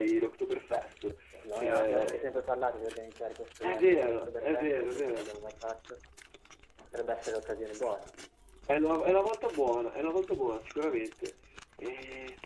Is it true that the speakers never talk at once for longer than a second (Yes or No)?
No